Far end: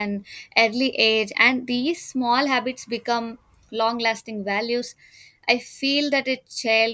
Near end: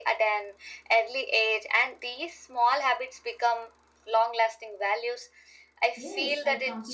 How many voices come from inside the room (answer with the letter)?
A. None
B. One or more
B